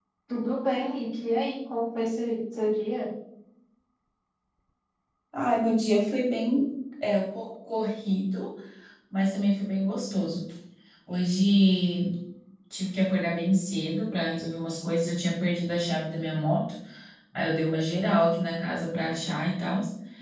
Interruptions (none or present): none